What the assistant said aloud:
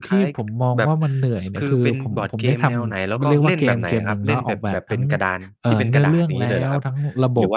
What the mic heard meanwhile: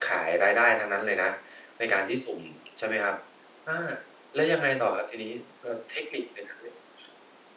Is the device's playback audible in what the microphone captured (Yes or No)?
No